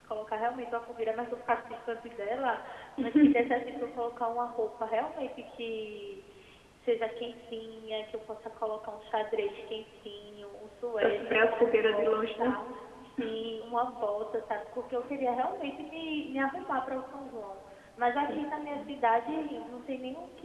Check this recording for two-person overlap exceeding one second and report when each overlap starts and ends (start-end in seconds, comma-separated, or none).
11.0-12.5